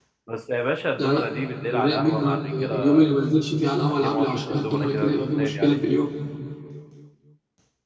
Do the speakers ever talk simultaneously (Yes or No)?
Yes